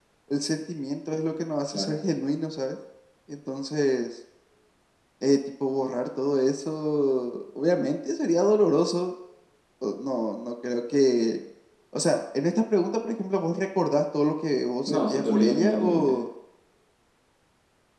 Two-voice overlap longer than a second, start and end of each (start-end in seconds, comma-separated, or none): 14.9-16.2